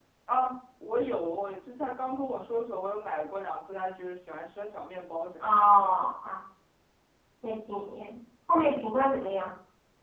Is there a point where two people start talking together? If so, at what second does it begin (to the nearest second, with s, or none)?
none